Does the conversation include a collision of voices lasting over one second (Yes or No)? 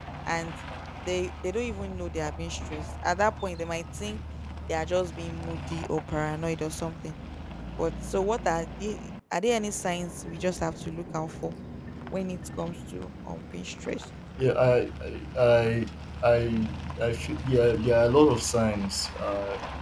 No